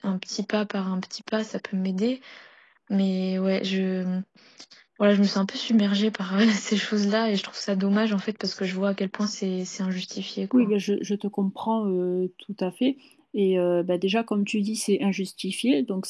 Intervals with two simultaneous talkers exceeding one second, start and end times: none

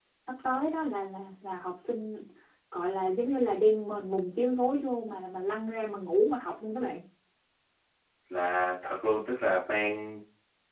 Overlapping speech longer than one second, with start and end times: none

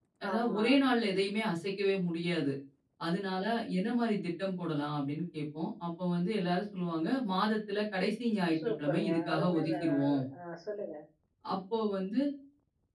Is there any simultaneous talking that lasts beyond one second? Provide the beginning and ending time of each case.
8.8-10.2

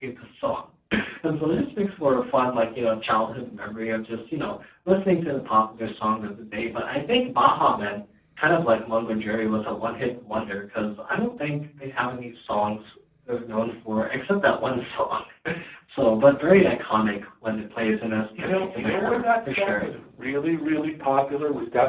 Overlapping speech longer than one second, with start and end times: 18.4-19.9

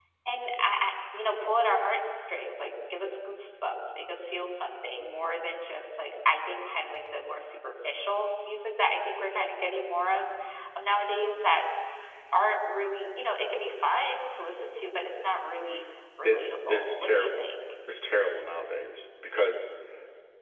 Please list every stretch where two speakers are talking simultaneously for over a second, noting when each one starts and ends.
16.2-17.4

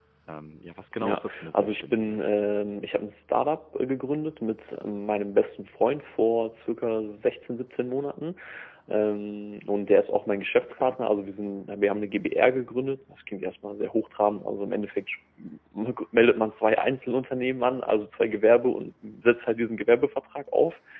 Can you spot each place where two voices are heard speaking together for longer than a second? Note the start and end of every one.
1.0-2.2

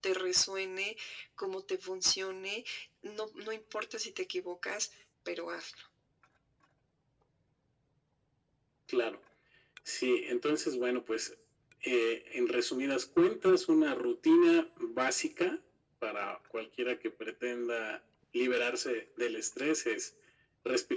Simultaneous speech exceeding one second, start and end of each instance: none

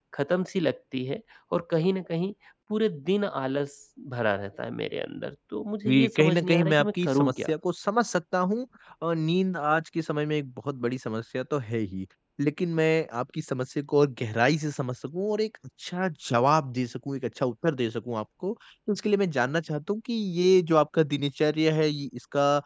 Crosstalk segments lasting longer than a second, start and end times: 5.9-7.5

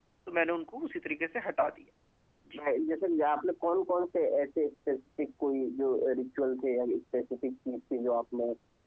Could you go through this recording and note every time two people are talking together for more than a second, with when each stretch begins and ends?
none

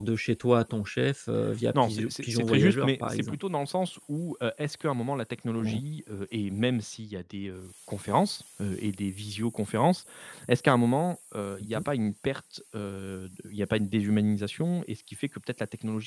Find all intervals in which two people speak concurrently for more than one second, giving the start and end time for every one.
1.8-3.4

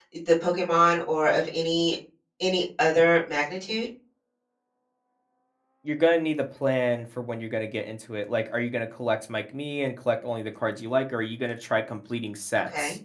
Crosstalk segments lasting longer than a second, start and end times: none

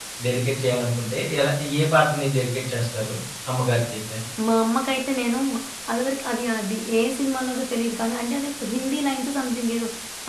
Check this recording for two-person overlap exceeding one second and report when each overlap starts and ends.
none

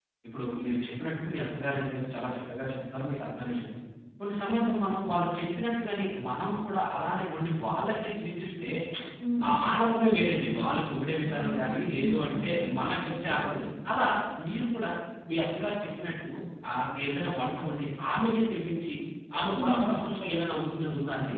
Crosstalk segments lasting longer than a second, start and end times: 11.2-12.8

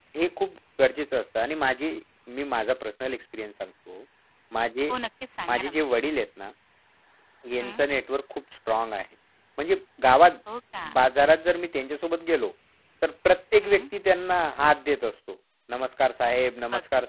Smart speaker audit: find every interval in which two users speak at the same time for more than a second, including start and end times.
none

